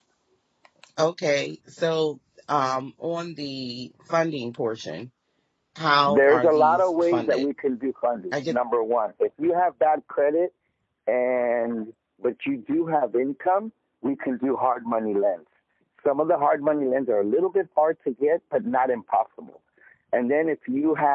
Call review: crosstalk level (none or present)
present